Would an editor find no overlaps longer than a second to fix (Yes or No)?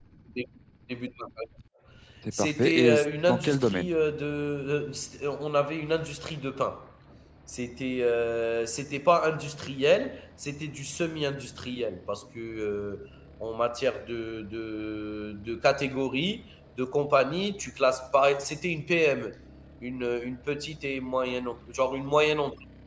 No